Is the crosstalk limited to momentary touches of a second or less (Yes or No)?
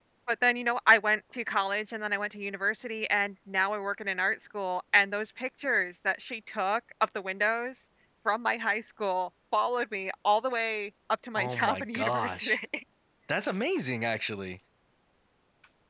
No